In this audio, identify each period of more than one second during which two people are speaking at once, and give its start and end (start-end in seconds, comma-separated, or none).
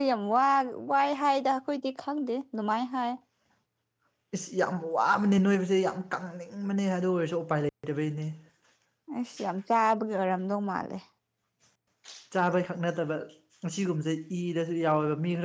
none